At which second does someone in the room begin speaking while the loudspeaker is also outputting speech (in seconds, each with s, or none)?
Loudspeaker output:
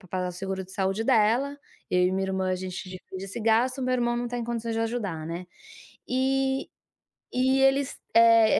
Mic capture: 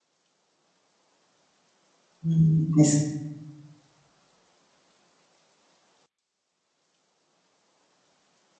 2.2 s